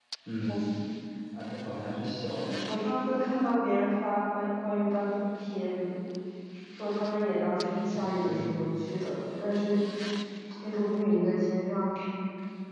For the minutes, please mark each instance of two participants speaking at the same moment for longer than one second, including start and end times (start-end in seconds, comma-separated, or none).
none